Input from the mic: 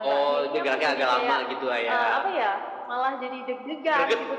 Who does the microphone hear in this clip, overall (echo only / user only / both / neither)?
echo only